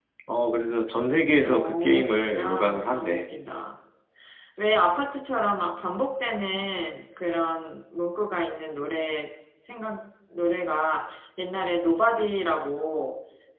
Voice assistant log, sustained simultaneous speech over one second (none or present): present